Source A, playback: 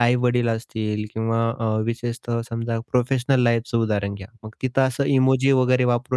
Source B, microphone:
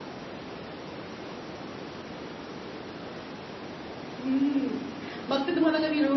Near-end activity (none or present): present